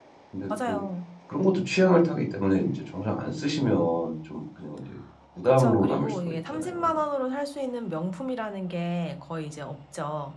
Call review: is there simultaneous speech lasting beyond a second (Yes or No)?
Yes